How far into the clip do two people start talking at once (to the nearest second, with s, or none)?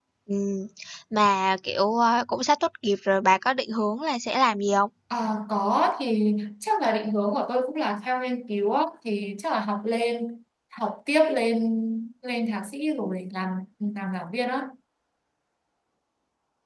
none